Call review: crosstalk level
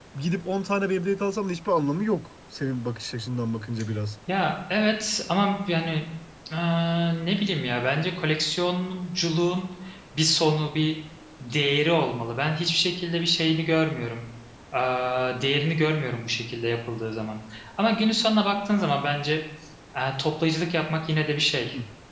none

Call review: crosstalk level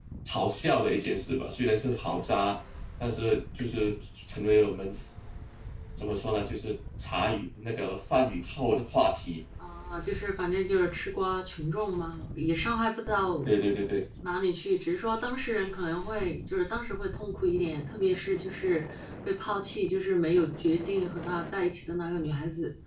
none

